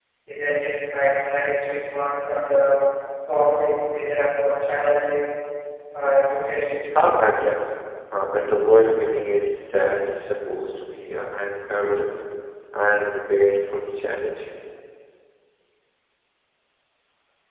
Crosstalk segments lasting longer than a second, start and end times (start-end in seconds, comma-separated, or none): none